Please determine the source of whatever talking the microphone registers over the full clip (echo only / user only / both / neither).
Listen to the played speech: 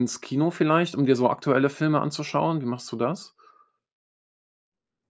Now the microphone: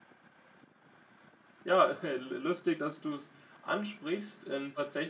user only